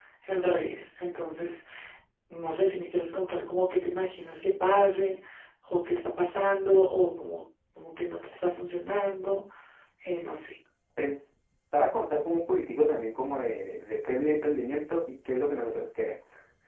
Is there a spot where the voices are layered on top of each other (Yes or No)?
No